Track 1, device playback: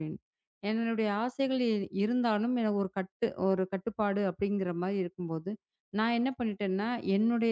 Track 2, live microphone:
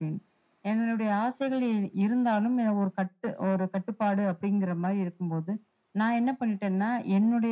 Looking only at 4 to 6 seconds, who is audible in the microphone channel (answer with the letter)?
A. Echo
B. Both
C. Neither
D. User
A